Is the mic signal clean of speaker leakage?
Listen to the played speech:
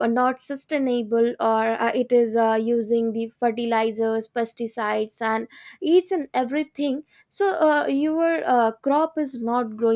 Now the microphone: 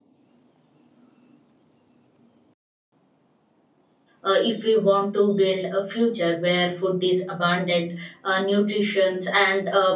Yes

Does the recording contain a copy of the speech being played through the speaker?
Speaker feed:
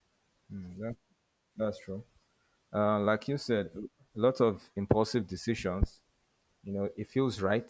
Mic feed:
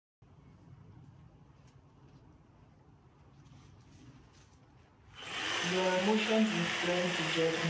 No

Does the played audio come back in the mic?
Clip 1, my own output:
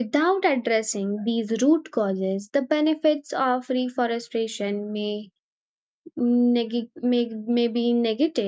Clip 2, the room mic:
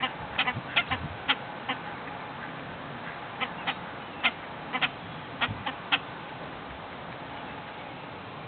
No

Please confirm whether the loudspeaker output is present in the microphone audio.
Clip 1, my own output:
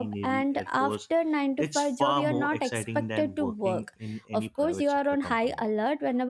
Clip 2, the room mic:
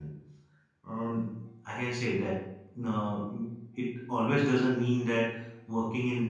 No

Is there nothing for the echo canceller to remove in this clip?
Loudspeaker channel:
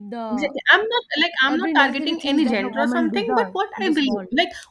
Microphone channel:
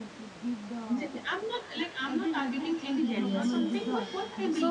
No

